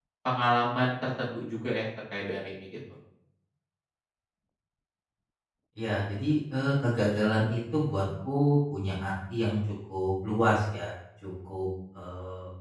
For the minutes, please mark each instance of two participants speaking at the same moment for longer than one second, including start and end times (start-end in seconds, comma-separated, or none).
none